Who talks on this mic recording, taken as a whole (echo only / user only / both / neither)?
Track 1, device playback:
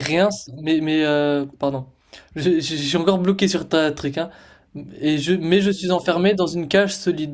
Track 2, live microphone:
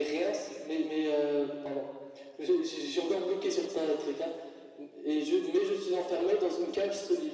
echo only